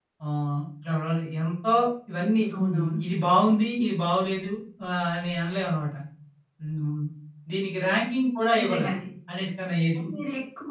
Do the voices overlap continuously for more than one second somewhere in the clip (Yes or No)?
No